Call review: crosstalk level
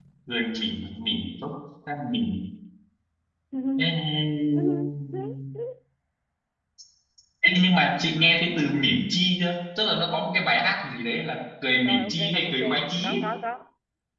present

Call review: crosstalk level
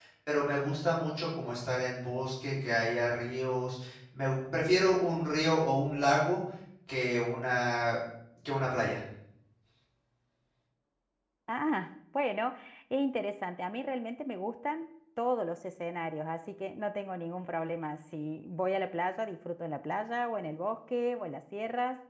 none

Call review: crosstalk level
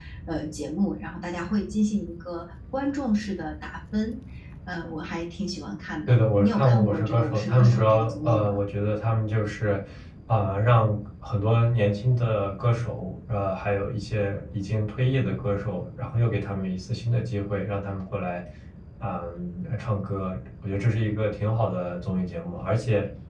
present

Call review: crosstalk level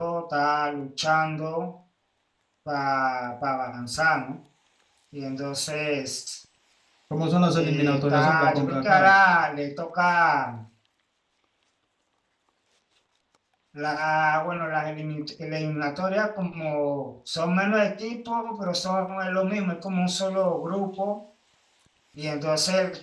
present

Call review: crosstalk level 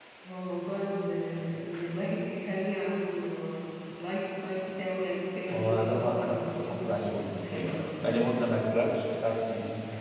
present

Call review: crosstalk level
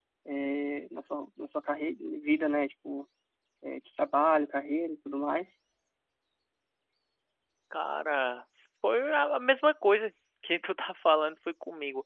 none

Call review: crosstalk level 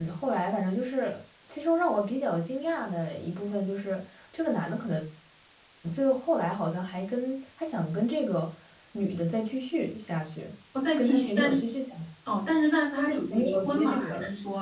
present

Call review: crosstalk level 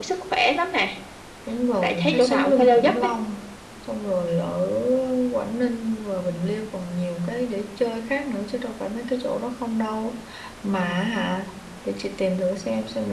present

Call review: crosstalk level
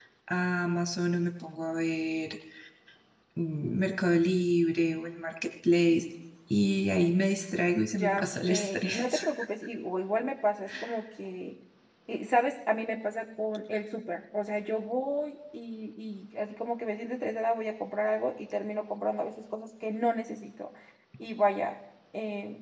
present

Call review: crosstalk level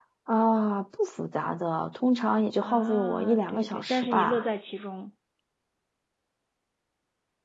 present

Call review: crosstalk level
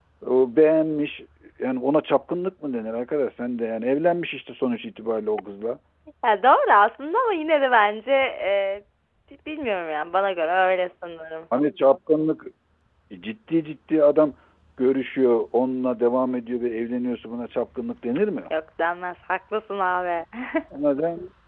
none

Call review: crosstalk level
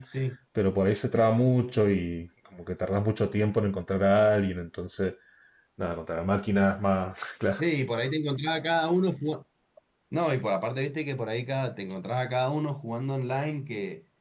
none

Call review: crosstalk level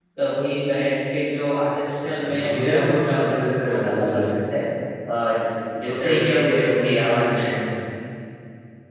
present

